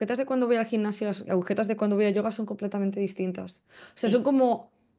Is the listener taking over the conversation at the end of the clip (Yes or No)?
No